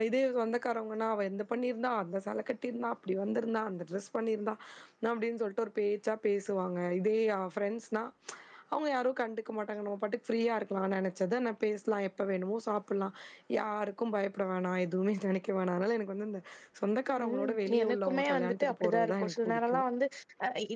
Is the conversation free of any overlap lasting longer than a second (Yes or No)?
No